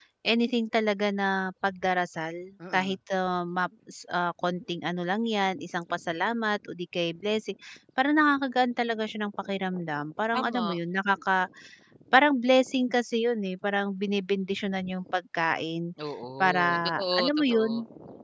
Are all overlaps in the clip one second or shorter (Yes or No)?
No